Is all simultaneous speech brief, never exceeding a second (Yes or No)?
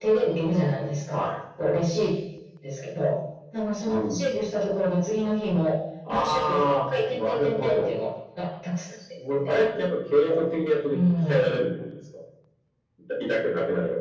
No